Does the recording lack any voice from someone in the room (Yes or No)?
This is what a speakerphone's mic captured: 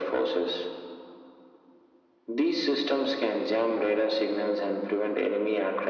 Yes